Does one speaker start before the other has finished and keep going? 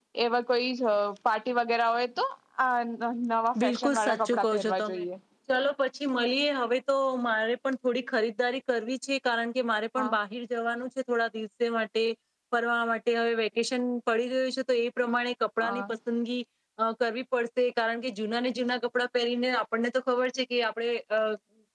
Yes, from 3.6 s

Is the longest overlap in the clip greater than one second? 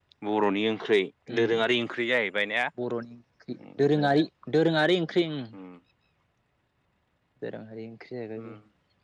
No

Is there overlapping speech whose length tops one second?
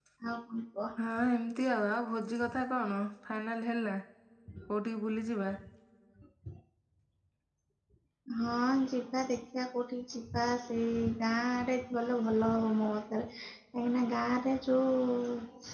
No

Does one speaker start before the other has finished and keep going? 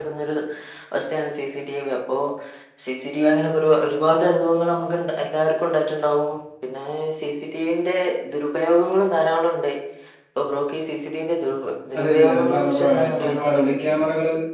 Yes, from 11.9 s

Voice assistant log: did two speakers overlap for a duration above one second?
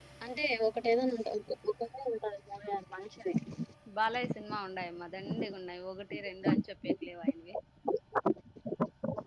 No

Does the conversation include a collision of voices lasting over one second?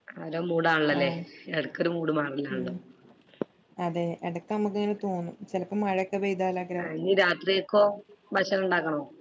No

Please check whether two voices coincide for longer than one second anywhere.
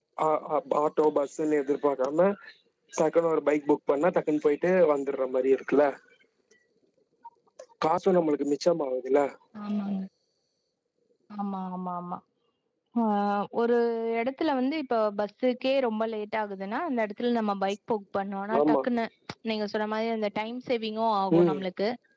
No

